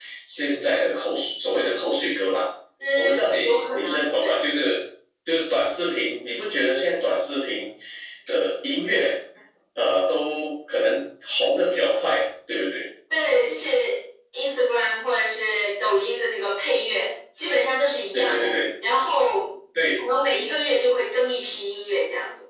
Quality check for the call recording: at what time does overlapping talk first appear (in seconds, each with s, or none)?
3.0 s